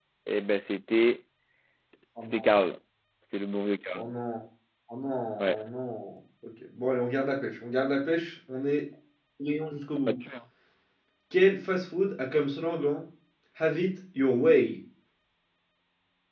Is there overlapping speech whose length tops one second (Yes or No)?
No